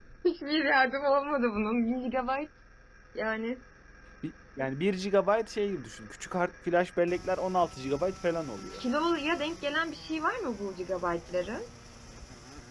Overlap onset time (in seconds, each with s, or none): none